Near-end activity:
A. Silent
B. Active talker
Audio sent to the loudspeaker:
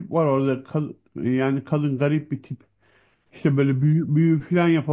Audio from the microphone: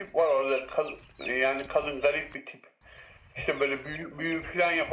A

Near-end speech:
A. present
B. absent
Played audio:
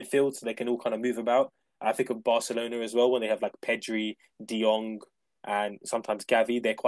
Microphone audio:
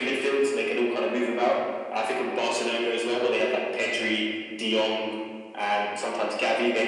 B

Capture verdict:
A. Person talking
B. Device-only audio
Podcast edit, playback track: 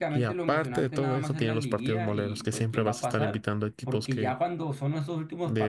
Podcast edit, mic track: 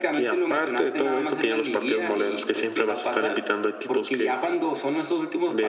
B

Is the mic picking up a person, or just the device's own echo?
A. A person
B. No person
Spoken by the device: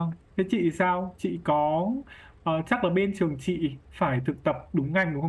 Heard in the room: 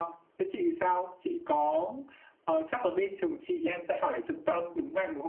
A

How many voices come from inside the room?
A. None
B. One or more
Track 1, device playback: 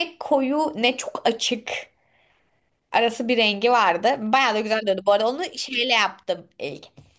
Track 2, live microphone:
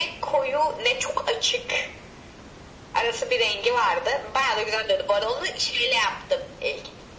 A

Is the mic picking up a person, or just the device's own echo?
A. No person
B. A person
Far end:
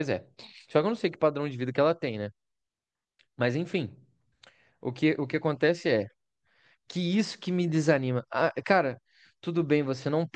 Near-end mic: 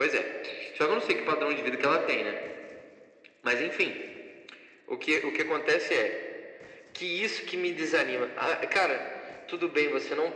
A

